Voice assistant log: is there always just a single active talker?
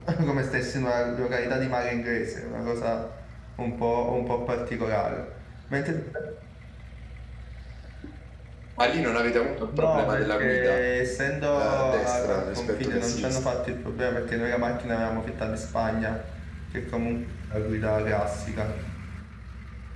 No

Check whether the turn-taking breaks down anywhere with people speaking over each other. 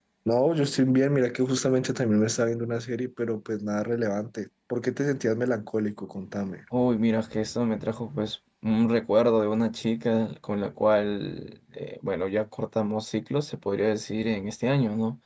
No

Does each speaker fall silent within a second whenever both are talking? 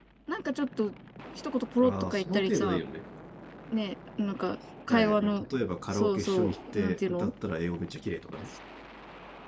No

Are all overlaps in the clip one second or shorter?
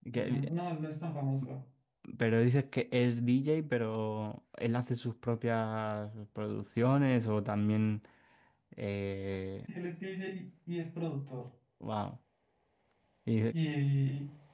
Yes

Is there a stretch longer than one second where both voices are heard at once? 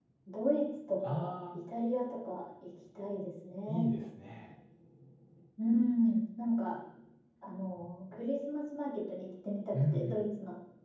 No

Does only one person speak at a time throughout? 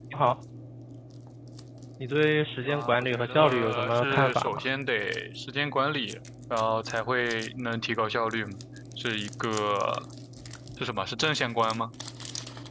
No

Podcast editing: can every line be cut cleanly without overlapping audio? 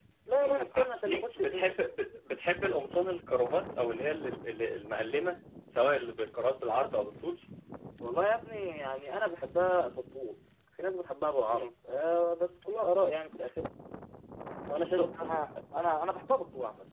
No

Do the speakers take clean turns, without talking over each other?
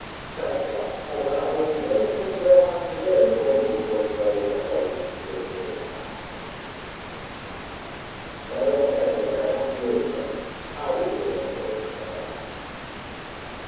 No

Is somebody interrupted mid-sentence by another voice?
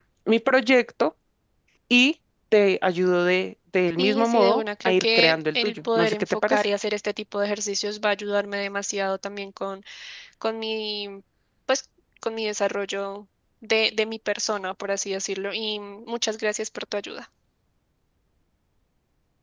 Yes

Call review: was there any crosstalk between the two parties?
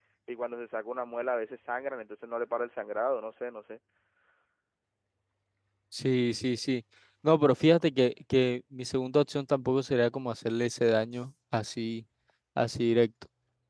No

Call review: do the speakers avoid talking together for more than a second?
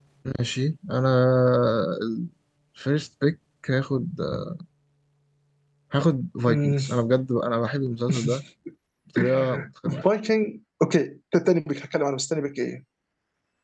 Yes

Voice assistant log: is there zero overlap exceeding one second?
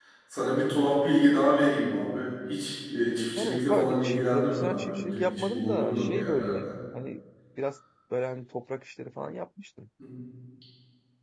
No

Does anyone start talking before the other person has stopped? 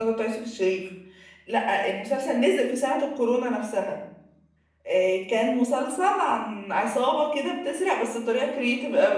No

